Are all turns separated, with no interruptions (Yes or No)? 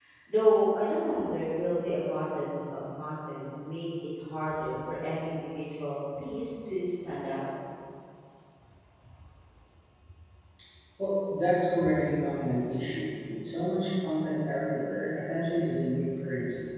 Yes